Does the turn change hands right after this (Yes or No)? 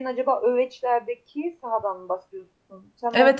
Yes